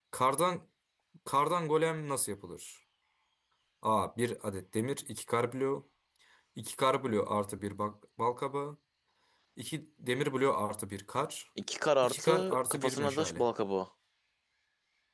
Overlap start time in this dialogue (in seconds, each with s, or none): 12.0 s